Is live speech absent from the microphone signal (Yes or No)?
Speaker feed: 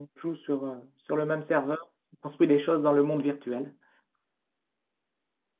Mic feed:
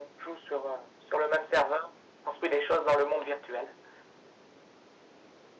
Yes